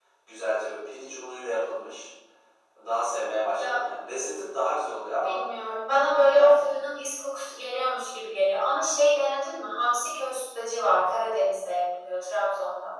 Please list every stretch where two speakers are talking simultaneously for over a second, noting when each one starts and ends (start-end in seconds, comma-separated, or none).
none